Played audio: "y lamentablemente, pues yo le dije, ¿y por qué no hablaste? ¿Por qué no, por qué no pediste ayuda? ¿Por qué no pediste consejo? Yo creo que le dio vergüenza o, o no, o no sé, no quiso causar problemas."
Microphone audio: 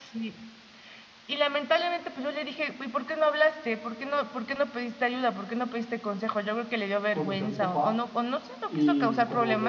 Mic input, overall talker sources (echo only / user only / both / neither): both